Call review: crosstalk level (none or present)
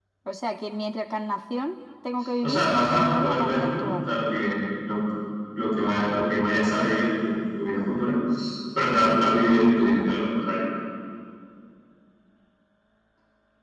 present